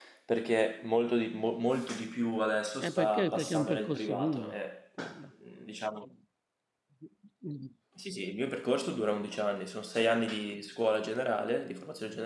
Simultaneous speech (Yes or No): Yes